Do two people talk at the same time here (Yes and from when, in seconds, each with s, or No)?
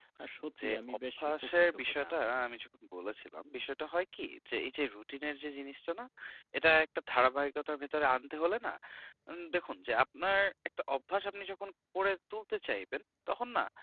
Yes, from 0.6 s